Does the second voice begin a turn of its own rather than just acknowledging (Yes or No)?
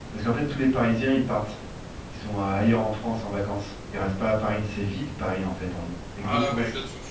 Yes